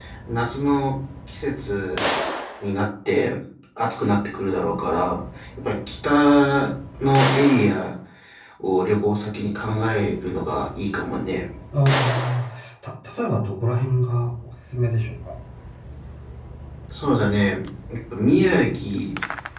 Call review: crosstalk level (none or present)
none